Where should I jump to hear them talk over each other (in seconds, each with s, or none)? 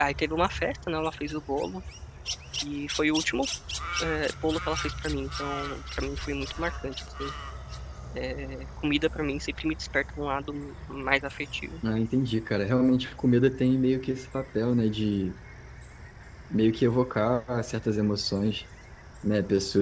none